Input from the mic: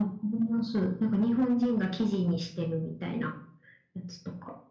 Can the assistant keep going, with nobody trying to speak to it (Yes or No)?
Yes